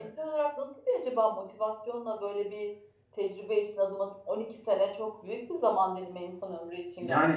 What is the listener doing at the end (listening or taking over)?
taking over